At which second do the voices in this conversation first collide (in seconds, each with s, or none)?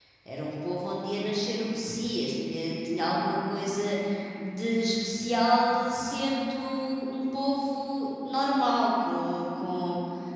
none